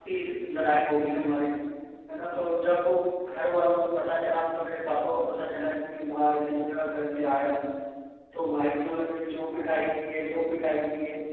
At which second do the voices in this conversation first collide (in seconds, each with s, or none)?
none